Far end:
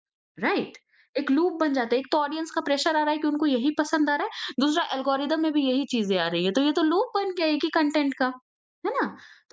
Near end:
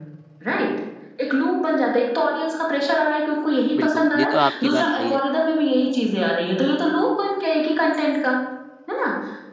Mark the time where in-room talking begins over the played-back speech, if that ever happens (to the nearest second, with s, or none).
4 s